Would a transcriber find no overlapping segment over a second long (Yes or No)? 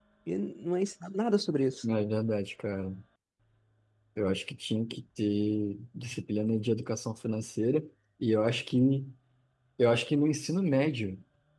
Yes